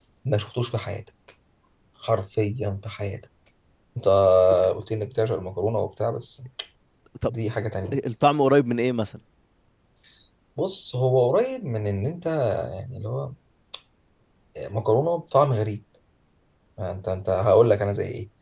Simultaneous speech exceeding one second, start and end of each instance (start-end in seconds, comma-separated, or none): none